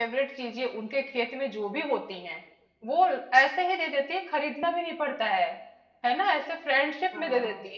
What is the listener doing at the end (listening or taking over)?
listening